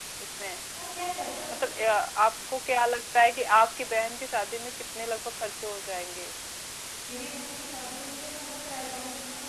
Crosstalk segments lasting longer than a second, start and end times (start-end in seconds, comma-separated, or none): none